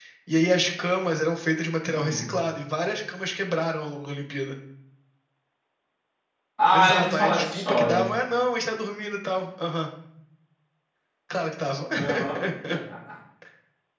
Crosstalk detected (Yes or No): Yes